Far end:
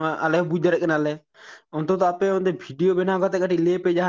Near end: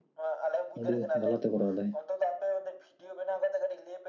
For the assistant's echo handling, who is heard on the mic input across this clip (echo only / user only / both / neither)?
both